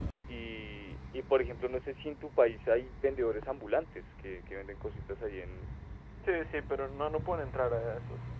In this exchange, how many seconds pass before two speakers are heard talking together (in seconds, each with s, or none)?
none